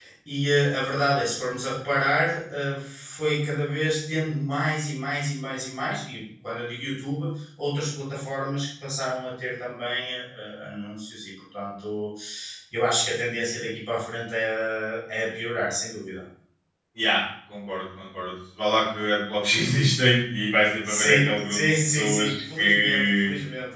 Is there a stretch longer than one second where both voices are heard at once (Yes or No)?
Yes